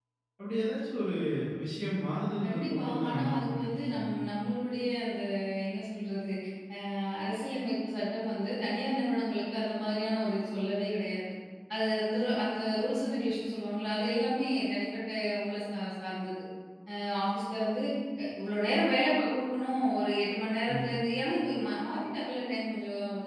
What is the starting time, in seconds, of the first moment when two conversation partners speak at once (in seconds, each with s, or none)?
2.4 s